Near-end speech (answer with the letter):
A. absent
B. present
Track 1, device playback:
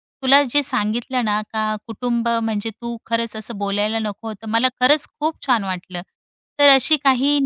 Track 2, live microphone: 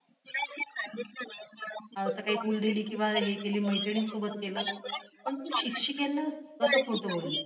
B